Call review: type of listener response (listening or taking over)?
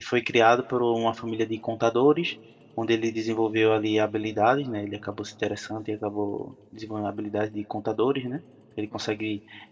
listening